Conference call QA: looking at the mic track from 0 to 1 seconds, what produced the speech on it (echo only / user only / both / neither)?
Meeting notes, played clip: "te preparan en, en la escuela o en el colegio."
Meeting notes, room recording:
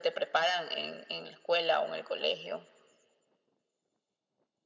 echo only